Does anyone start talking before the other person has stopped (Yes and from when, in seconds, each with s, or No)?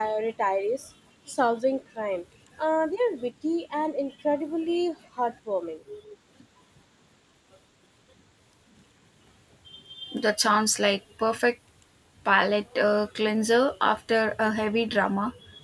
No